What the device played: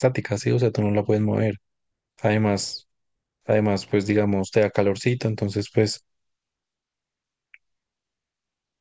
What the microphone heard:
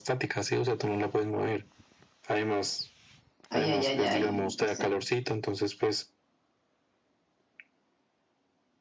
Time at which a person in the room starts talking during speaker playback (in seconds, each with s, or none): 3.5 s